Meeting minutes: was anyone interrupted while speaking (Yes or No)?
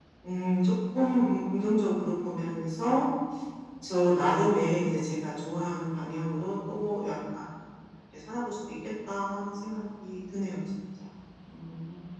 No